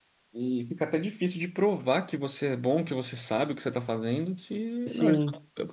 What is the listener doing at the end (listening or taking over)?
listening